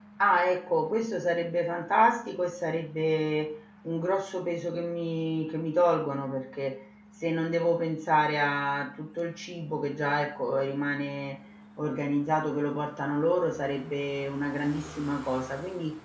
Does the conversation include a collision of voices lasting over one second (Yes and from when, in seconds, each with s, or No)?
No